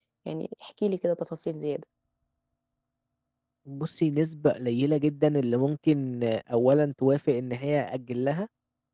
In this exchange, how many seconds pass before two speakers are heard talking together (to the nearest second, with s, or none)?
none